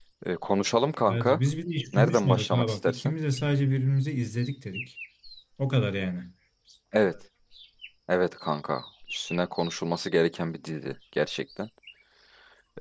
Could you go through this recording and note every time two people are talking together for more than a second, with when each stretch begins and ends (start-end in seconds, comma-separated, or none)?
1.9-3.1